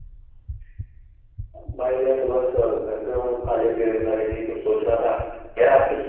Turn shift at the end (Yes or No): No